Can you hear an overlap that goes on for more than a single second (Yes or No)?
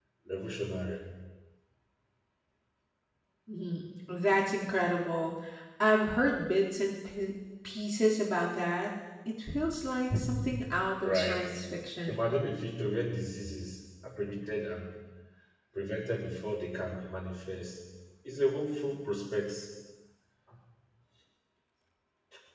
No